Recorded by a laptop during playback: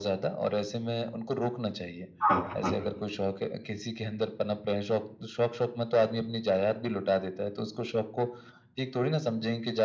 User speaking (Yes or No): Yes